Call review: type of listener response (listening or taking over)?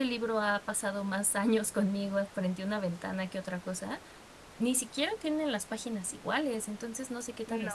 listening